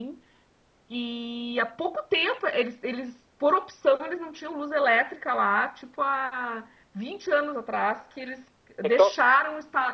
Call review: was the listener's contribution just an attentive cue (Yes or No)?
Yes